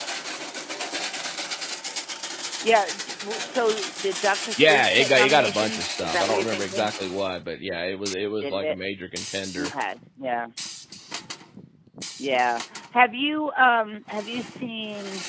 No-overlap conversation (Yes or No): No